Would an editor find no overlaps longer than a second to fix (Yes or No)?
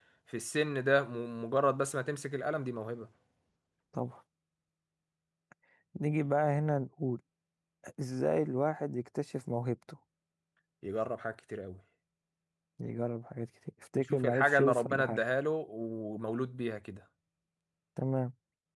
No